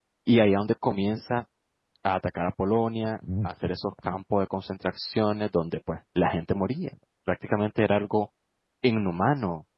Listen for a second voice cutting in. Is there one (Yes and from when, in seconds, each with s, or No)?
No